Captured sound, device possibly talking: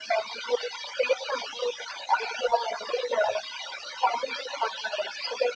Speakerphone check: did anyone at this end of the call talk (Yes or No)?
No